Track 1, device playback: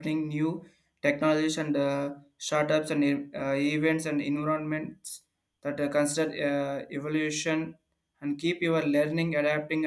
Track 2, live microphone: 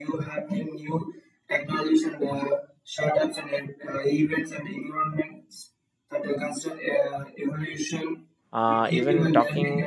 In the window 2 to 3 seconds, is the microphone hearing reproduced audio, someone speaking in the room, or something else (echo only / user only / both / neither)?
echo only